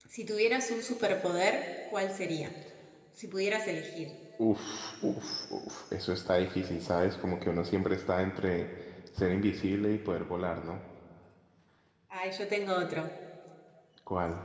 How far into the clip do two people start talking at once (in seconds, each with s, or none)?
none